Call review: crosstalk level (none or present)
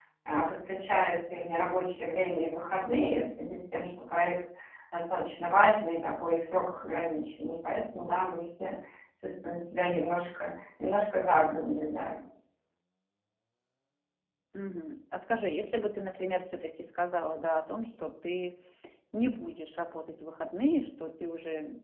none